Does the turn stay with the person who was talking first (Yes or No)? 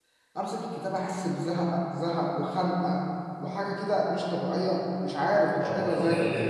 No